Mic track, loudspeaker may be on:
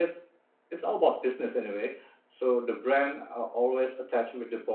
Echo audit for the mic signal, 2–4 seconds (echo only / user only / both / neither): user only